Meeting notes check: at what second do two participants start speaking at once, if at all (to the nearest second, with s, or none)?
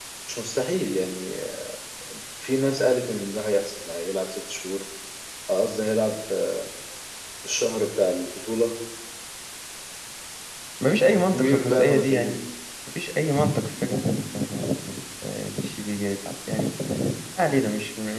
11 s